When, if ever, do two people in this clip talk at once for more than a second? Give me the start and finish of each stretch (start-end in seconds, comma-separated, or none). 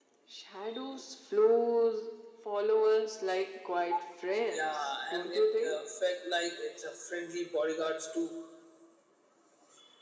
4.5-5.8